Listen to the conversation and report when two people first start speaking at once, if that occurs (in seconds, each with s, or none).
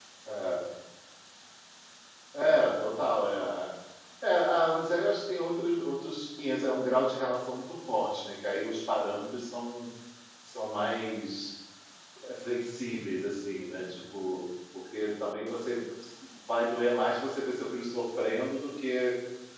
none